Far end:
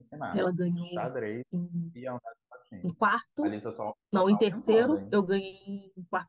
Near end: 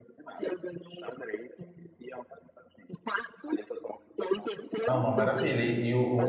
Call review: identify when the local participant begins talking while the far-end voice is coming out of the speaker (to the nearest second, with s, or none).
5 s